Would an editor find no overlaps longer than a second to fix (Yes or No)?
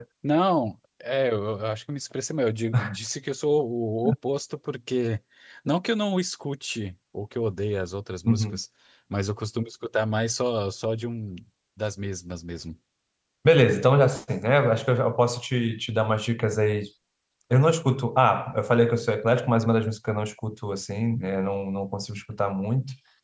Yes